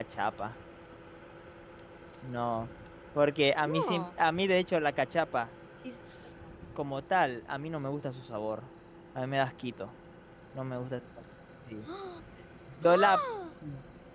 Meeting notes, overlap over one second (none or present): none